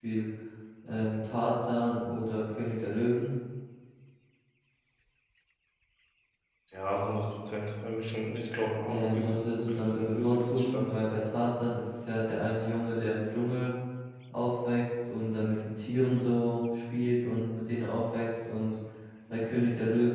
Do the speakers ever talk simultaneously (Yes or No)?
Yes